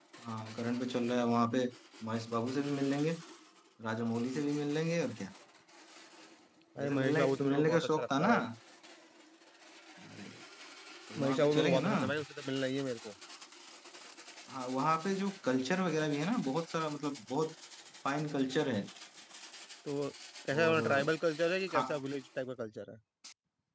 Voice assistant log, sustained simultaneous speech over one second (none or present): present